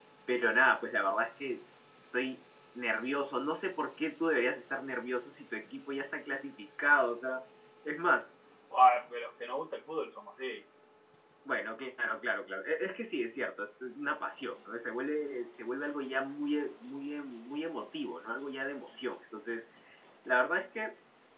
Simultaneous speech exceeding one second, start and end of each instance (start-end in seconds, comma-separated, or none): none